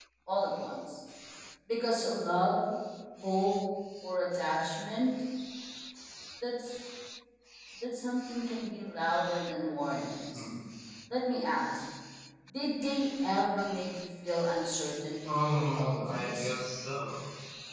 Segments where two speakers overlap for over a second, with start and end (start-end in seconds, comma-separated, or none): 15.2-16.5